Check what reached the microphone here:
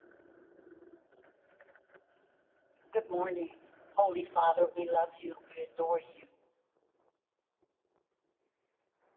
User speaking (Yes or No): Yes